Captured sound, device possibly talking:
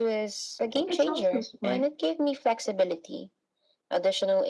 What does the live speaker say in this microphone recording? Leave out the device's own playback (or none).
It's also smart.